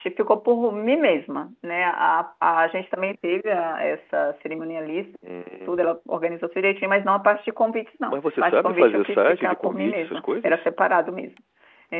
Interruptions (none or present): present